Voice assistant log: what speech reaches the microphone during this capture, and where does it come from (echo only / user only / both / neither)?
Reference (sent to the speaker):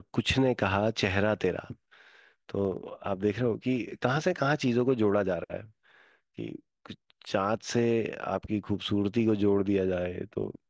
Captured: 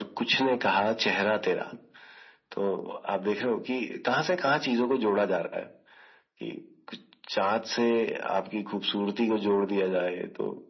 echo only